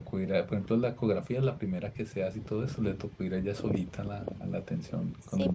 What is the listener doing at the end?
taking over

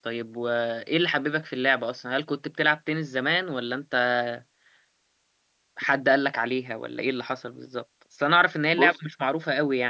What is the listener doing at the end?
listening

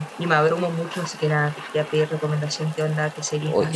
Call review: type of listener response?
taking over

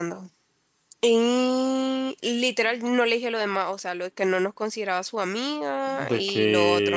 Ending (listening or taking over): taking over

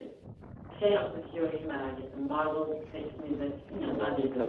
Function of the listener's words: listening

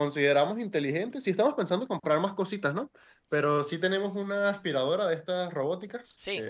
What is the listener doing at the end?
taking over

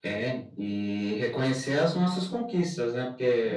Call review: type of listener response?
listening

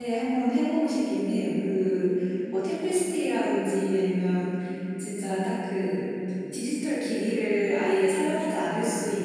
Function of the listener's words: listening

